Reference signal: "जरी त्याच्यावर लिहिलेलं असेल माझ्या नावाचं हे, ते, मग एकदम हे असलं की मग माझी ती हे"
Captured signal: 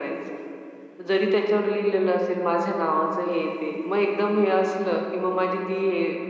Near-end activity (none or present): none